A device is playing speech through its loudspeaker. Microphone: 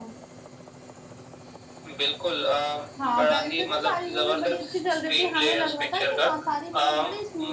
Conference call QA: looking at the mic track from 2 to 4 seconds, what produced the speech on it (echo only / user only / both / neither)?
both